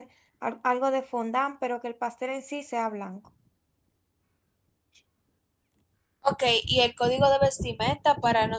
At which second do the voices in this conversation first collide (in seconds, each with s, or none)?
none